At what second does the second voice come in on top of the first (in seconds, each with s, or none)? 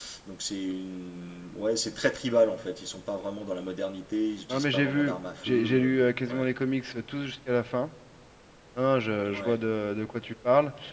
4.5 s